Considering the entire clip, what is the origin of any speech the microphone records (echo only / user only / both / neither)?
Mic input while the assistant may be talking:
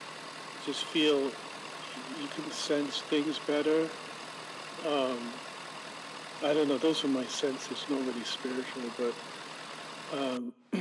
echo only